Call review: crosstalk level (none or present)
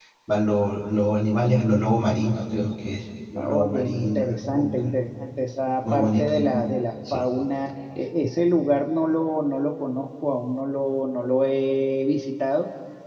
present